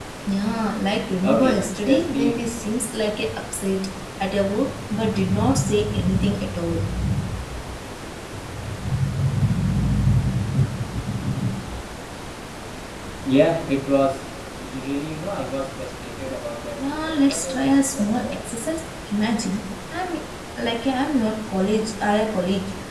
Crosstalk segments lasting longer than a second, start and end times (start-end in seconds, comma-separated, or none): 1.2-2.5, 16.9-18.5